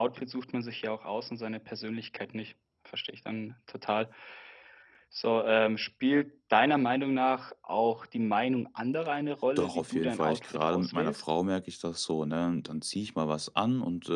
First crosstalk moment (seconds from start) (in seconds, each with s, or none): 9.6 s